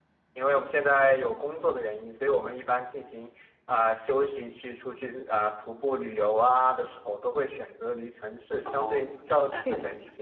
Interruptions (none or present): present